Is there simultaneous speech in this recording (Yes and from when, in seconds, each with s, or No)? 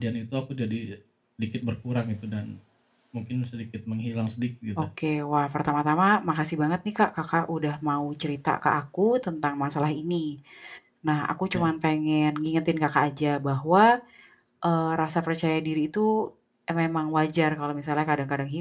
No